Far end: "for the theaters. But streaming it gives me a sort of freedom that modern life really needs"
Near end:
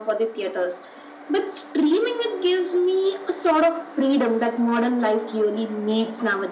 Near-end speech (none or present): none